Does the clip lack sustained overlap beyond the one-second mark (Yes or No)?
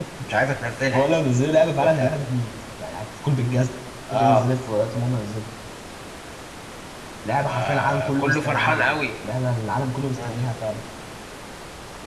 No